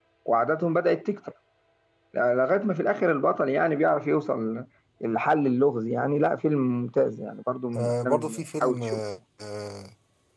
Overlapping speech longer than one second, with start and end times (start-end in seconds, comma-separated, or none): 7.8-9.0